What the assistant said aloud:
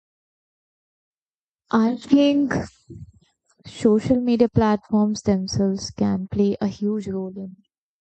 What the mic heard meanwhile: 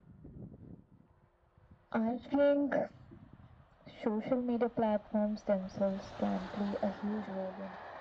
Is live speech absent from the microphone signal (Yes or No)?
Yes